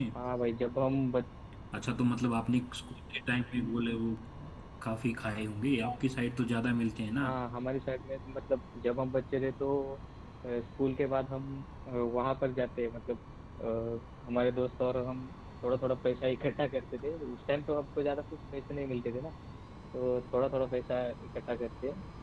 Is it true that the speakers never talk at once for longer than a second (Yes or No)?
Yes